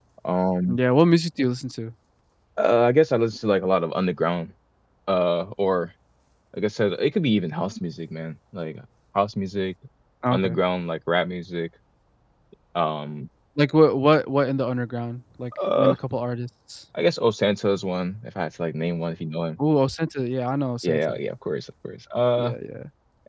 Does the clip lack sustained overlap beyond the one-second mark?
Yes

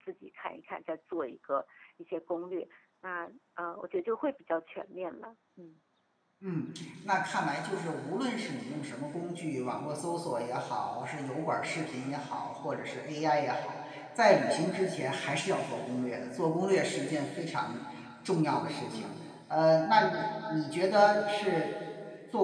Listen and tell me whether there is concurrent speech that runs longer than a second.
No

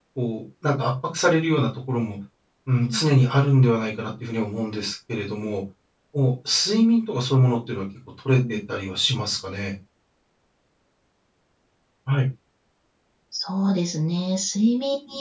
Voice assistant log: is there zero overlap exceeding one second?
Yes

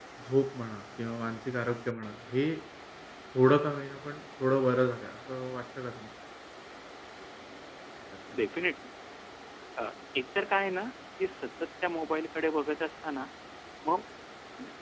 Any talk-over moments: No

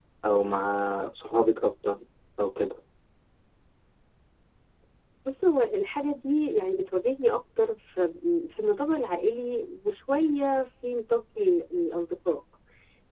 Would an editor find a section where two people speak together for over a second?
No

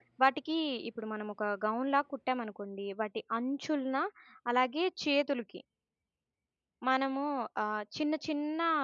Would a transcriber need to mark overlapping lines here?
No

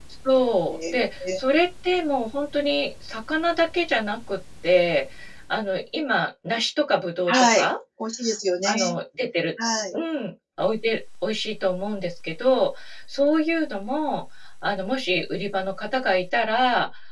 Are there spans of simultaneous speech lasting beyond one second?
No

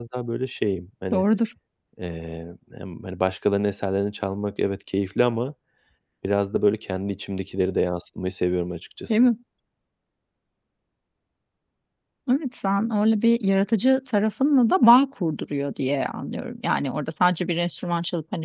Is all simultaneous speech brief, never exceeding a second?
Yes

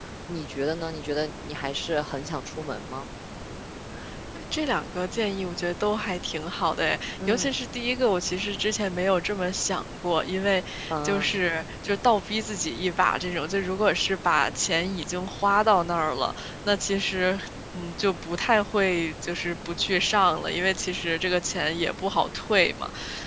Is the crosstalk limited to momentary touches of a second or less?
Yes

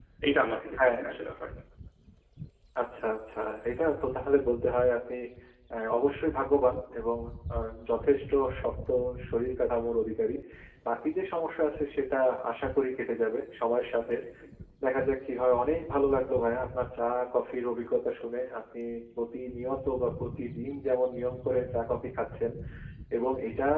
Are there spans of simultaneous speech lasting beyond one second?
No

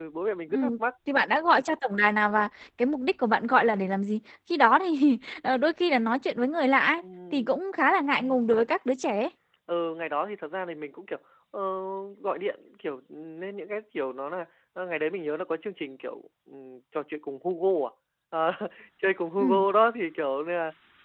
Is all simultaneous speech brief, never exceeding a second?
Yes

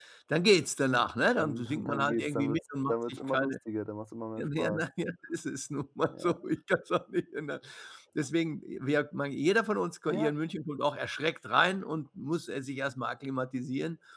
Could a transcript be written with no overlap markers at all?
No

